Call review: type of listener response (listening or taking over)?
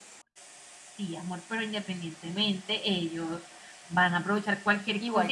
taking over